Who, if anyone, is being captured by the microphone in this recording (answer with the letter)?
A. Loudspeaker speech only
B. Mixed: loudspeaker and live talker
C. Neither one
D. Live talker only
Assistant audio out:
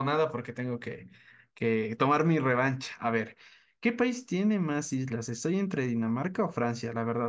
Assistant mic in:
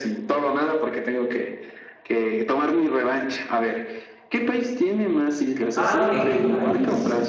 B